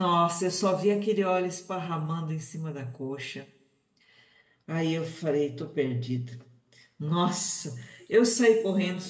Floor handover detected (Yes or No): No